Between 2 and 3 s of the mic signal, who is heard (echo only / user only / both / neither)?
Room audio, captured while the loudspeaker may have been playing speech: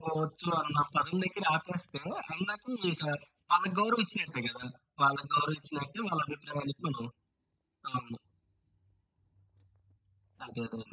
echo only